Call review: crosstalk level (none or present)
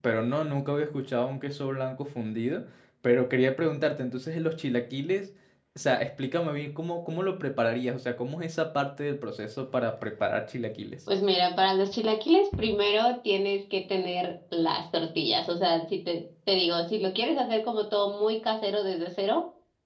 none